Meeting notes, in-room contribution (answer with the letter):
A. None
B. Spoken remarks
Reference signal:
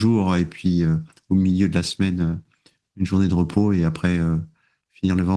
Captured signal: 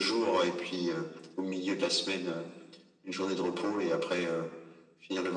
A